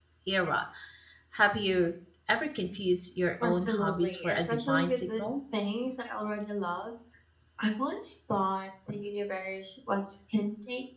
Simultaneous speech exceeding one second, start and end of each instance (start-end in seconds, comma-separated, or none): 3.4-5.2